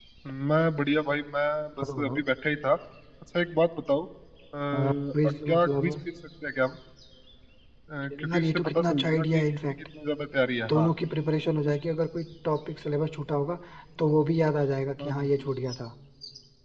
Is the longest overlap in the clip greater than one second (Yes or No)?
Yes